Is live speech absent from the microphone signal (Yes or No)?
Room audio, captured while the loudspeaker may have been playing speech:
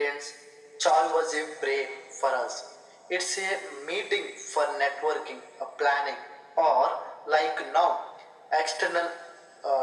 Yes